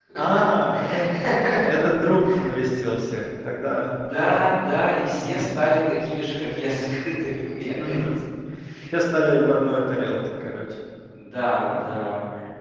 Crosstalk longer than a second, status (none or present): none